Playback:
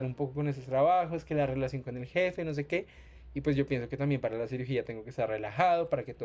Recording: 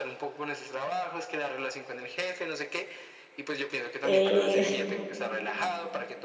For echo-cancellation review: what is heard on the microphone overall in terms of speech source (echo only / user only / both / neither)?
both